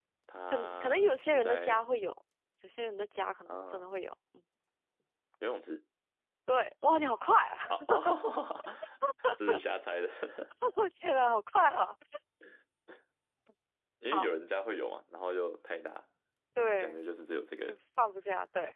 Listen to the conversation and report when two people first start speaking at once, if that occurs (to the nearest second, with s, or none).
1 s